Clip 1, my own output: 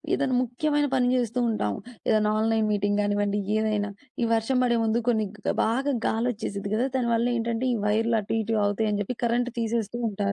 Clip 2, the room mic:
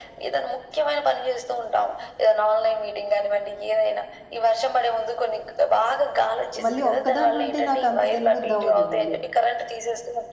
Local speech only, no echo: మళ్ళీ ఒక్కదాన్నుంటే నాకంత తినబుద్దవ్వదు మళ్ళీ.

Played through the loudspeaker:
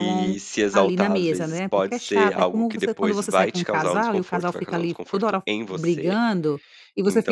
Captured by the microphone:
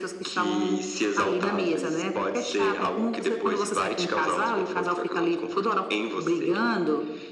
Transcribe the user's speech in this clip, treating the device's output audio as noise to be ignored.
none

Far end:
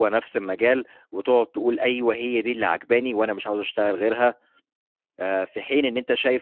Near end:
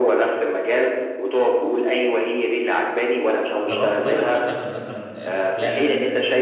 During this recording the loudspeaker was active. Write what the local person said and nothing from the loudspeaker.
جرّبت طيب تشتغل مثلًا شُغلانة

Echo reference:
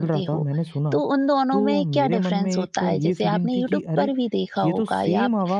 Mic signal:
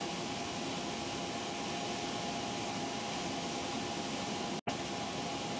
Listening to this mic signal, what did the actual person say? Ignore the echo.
none

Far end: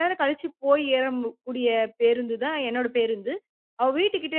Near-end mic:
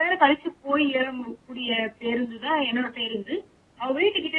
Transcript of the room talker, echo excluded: none

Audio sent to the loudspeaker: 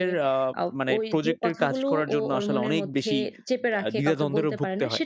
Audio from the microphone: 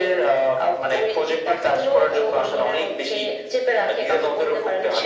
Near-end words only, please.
none

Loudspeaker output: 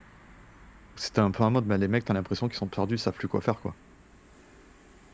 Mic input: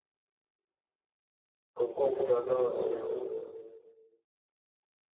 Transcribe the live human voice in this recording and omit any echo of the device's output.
Comme quoi on peut pas avoir, heu

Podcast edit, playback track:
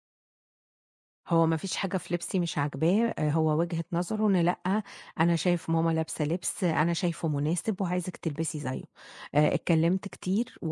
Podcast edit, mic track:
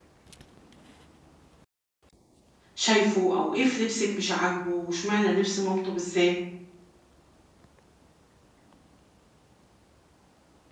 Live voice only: شايفه أو إيه في لبسِك مش عاجبه وإشمعنى لبس مامته بالذات؟

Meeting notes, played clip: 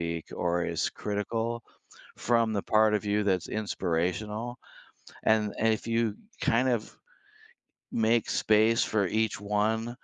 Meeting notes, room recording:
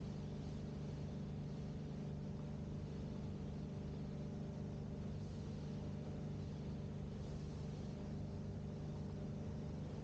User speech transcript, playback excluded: none

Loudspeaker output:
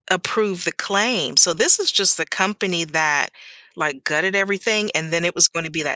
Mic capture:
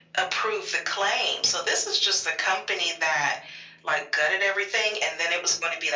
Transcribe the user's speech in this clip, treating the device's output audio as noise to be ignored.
none

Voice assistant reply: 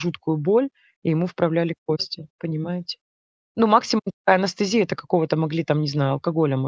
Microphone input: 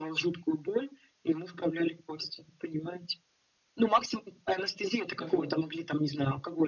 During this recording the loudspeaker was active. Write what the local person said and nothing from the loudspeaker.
Вот.

